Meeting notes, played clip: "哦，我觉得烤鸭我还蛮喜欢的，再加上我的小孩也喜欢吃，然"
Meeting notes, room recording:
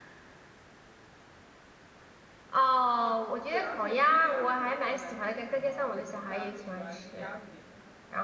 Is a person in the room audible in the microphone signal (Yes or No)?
Yes